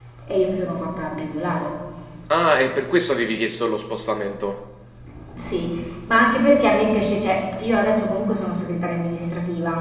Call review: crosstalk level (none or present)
none